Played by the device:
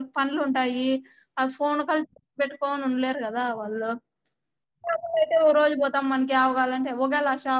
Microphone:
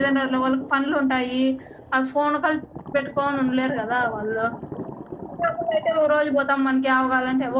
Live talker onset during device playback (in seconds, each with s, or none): none